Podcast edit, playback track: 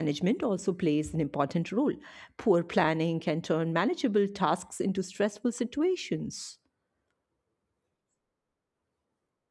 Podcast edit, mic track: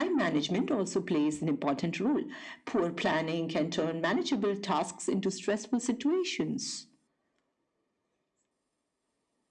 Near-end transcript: none

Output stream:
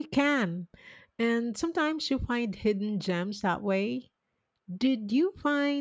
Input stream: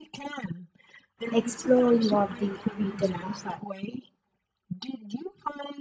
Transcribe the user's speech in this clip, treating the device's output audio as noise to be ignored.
exploring of the beaten path.

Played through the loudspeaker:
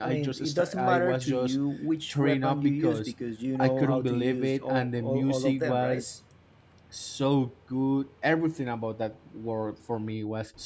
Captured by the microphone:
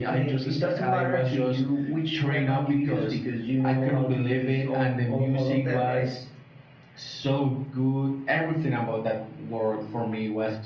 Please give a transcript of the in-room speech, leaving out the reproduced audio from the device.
none

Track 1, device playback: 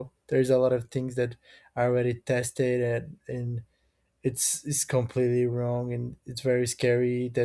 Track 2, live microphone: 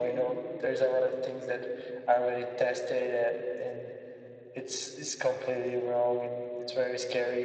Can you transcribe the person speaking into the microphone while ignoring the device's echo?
none

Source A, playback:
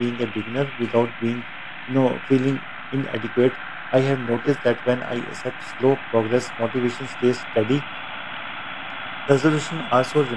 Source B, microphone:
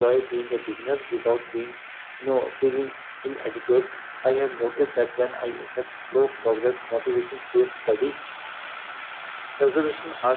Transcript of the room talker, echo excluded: none

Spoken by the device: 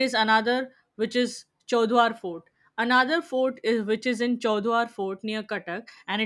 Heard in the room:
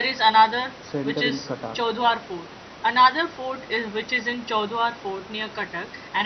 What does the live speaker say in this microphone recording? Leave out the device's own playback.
center in Cuttack.

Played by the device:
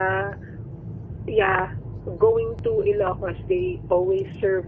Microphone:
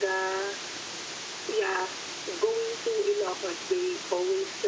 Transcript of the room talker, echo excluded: none

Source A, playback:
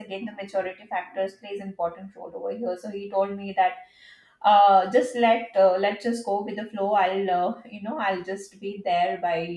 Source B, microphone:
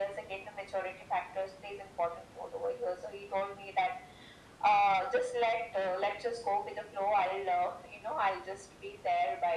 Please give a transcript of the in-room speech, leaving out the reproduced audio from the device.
none

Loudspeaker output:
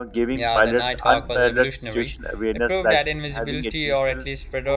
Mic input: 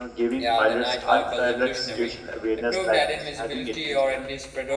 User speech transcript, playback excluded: none

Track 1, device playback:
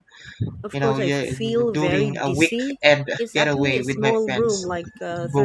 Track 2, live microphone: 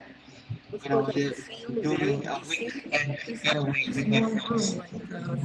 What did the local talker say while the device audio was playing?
none

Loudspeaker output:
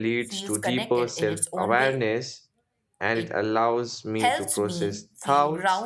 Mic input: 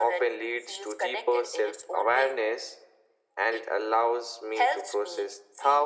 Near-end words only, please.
none

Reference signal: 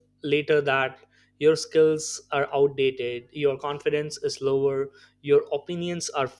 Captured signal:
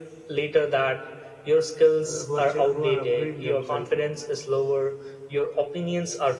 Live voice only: uh, who are ch- who are upgrading themselves

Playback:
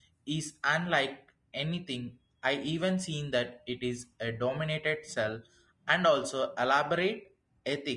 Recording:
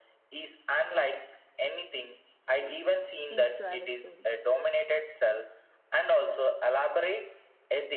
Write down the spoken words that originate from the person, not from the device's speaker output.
seems to have a story.

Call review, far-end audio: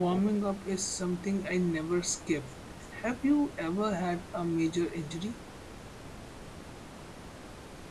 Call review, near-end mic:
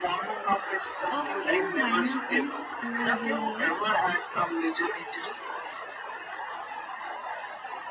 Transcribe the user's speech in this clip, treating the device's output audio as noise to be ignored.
A few minor things over the years.

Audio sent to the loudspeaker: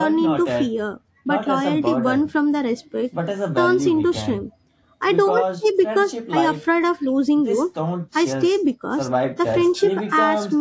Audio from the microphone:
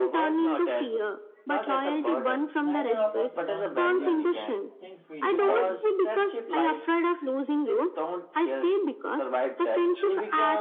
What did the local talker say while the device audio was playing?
neither of us runs when things feel heavy.

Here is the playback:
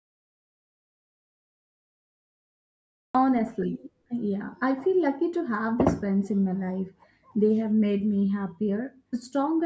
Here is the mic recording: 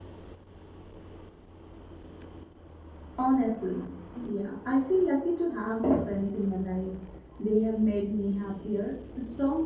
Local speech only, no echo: none

